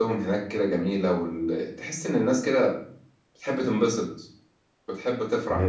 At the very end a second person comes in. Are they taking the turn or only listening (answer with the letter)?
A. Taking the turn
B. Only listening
A